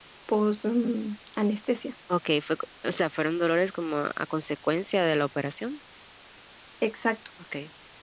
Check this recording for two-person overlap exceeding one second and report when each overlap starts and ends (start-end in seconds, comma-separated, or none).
none